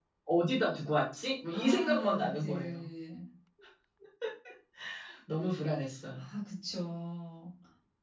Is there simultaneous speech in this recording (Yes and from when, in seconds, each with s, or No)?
Yes, from 1.5 s